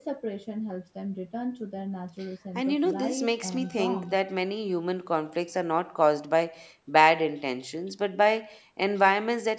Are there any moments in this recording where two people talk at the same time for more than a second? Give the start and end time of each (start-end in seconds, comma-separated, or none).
2.5-4.1